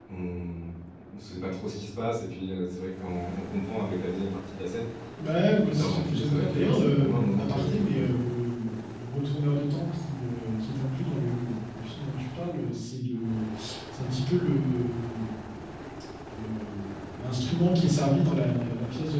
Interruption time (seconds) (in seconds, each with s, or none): 5.7 s